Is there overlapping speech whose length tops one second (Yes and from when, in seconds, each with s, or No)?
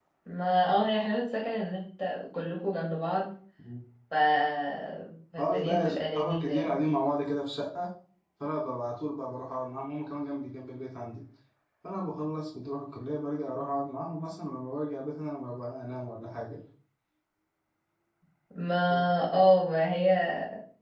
Yes, from 5.4 s